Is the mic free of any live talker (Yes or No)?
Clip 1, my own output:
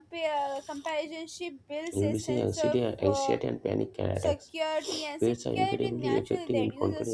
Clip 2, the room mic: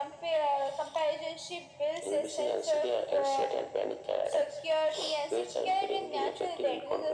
Yes